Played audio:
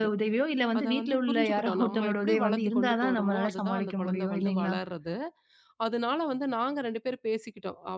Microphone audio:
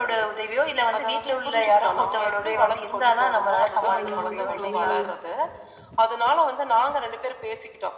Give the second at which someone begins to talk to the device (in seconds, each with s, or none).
3.9 s